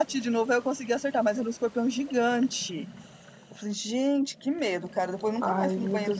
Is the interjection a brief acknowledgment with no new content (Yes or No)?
No